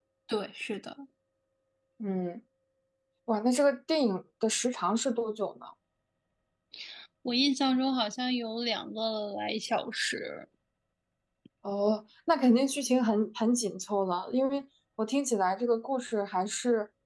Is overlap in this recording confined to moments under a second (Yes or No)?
Yes